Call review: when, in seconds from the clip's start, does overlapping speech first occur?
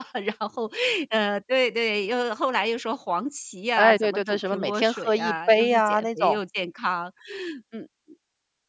3.8 s

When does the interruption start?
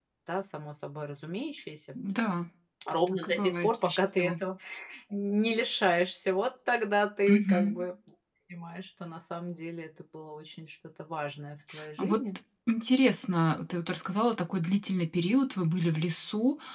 3.1 s

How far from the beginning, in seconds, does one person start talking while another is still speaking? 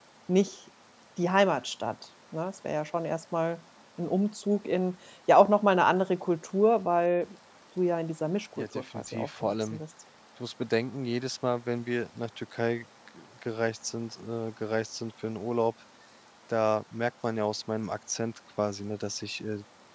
8.6 s

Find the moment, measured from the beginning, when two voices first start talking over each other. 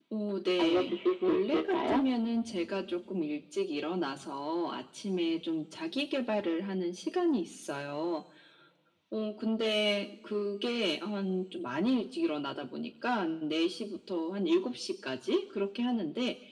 0.6 s

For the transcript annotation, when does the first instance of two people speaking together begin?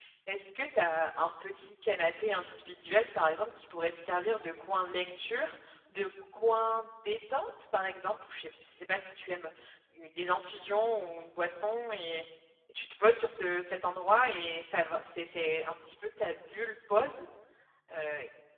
none

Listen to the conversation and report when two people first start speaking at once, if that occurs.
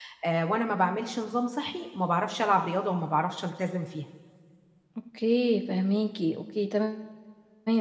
none

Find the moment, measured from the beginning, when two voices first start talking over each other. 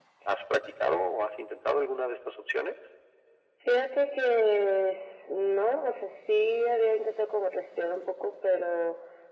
none

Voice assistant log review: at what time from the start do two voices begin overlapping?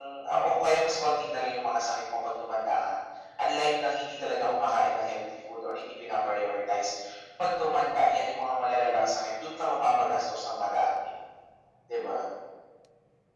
none

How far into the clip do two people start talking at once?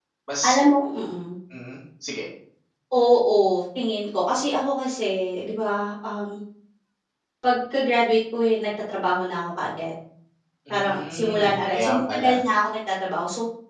10.7 s

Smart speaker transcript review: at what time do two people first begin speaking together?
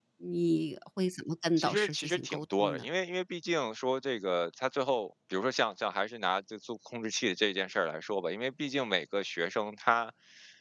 1.6 s

